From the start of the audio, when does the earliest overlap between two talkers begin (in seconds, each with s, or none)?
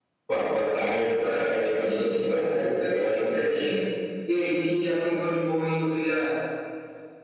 1.2 s